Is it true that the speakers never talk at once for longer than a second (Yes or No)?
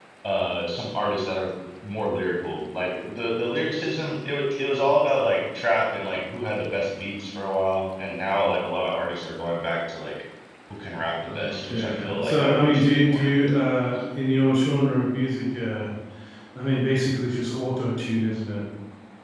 No